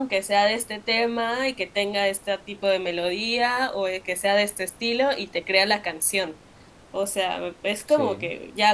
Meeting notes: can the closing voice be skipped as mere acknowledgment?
Yes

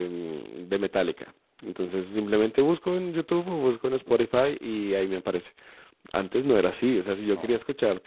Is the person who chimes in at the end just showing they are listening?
Yes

